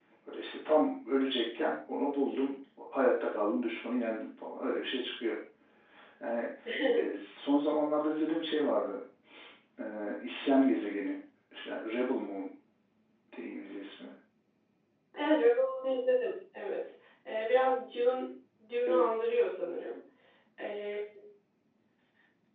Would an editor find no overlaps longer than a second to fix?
Yes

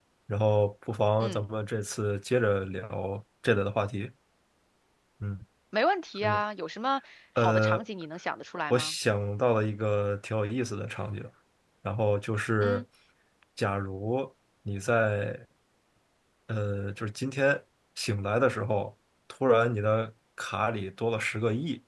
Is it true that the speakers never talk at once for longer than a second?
Yes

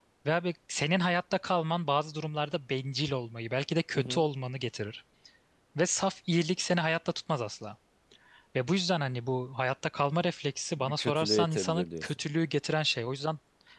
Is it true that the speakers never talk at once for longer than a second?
No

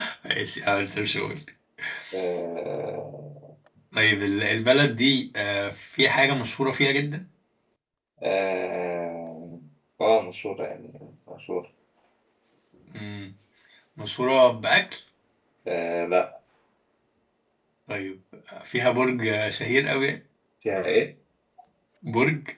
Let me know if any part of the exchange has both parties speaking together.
No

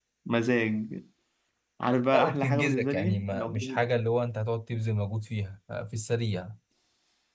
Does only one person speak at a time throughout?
No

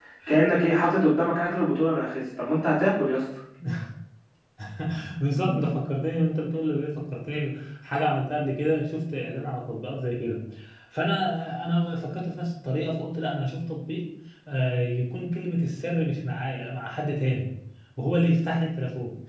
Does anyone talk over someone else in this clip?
No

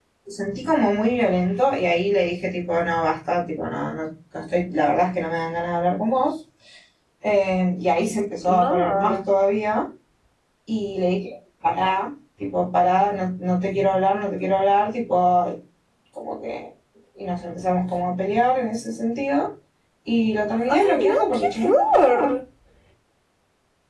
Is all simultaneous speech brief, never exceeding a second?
No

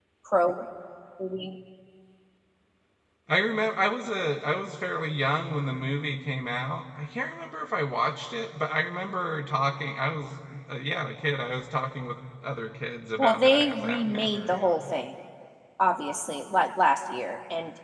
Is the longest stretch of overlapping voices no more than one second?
No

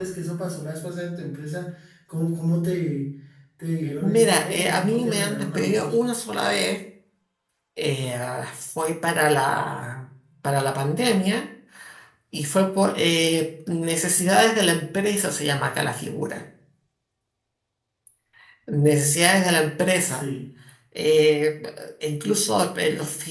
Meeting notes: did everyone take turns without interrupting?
No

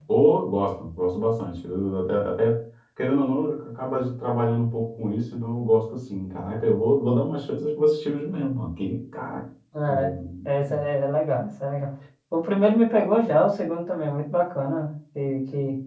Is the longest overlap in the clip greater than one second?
No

